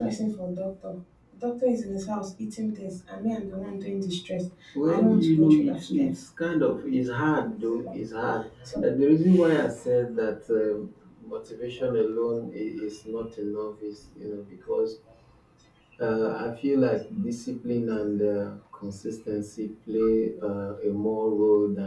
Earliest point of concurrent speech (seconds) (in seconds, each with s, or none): 4.9 s